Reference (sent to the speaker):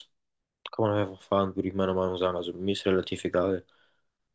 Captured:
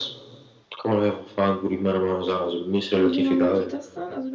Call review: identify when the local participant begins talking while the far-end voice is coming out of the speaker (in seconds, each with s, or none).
2.9 s